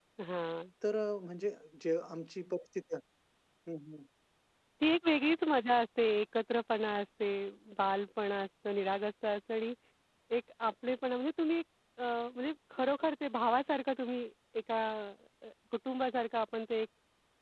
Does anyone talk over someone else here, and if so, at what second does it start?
none

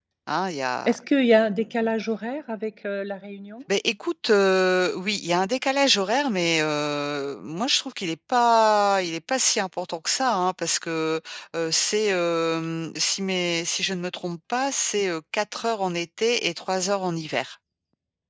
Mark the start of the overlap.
none

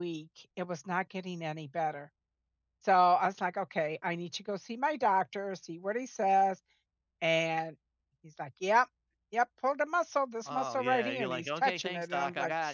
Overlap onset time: 10.5 s

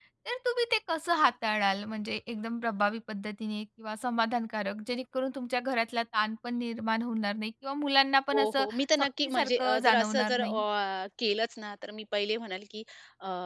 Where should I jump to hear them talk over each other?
8.3 s

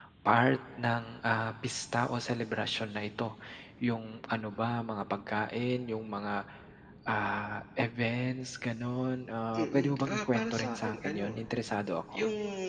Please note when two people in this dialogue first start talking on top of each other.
9.5 s

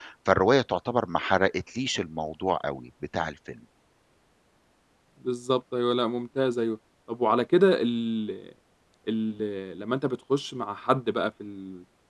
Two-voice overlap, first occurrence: none

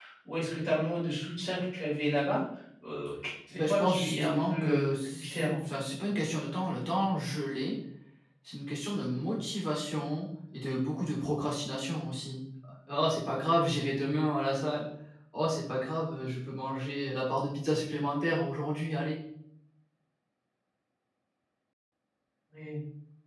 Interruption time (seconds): 3.6 s

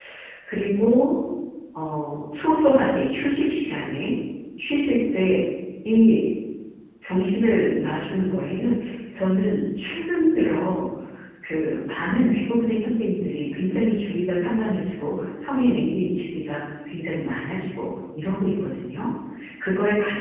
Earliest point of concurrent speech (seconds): none

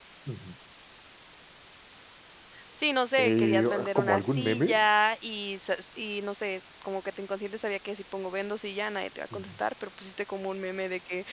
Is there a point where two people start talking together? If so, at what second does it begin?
3.2 s

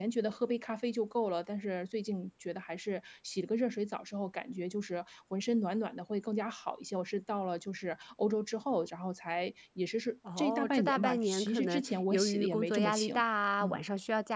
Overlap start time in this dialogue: 10.2 s

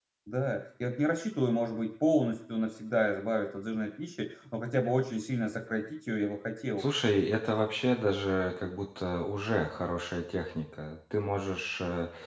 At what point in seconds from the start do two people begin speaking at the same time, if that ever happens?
none

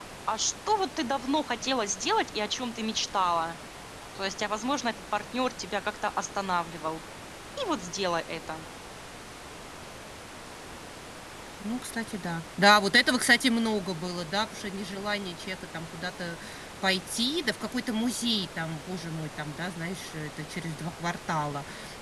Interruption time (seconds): none

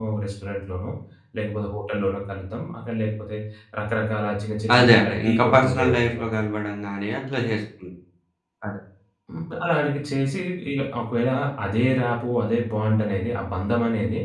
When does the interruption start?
4.7 s

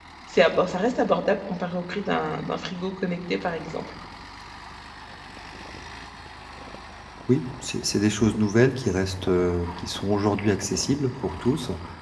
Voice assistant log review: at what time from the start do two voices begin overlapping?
none

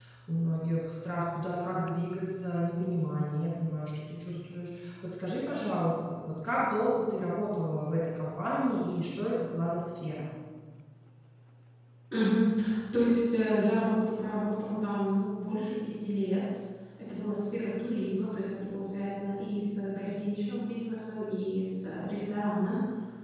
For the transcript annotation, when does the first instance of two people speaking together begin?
none

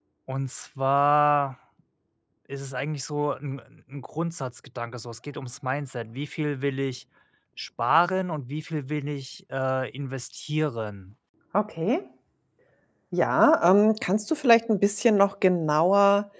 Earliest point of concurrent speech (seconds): none

